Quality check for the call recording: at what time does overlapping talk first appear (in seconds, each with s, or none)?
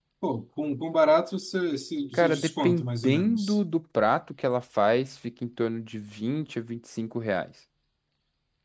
2.1 s